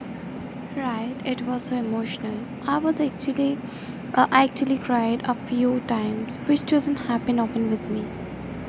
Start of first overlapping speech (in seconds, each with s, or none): none